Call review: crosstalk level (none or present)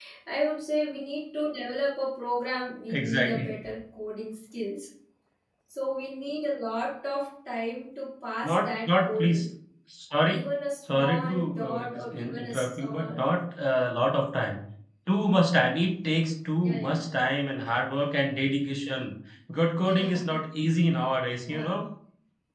present